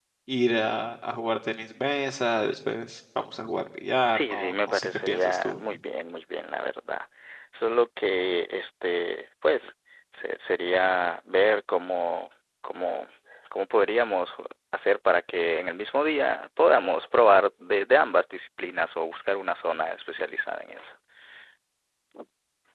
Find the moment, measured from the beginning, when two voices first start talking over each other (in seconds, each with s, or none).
4.1 s